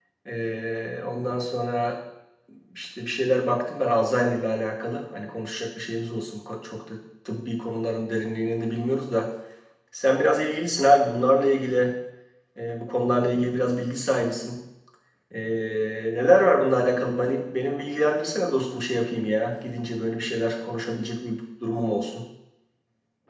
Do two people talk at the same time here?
No

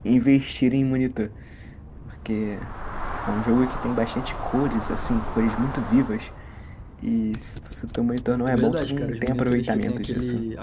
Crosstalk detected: Yes, from 8.5 s

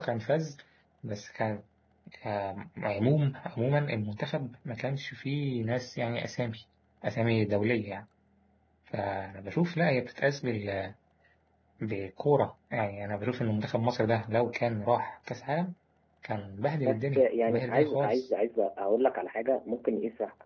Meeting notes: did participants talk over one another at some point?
Yes, from 16.9 s

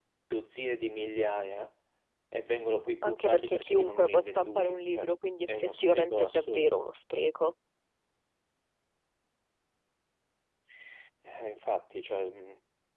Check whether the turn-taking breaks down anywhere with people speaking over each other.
Yes, from 3.0 s

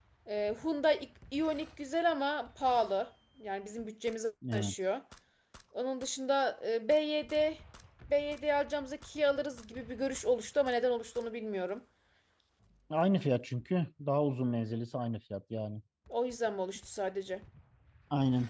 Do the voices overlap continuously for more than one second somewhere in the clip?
No

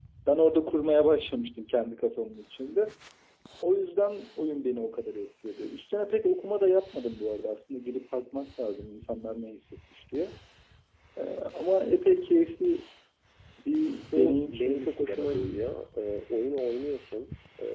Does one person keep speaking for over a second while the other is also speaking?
Yes, from 14.1 s

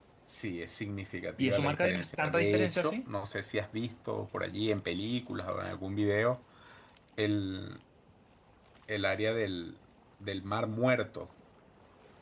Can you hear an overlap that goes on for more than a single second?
Yes, from 1.4 s

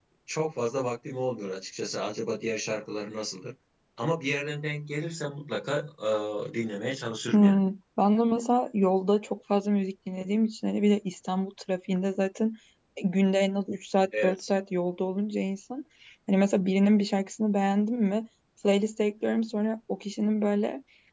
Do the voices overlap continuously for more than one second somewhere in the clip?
No

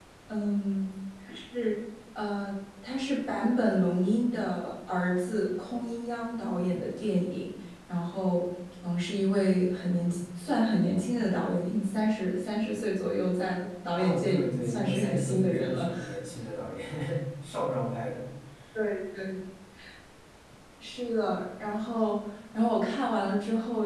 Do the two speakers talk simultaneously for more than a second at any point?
Yes, from 14.0 s

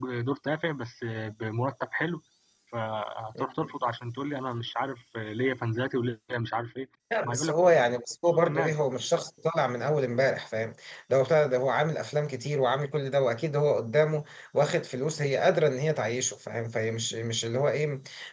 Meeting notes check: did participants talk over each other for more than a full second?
No

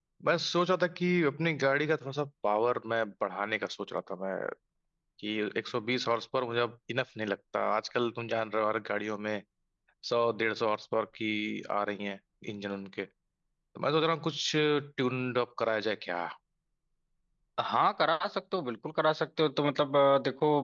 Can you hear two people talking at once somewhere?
No

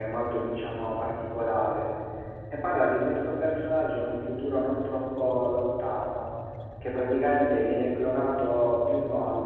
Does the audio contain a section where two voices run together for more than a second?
No

